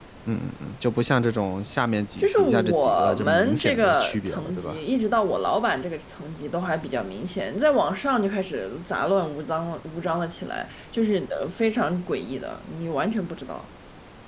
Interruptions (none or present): present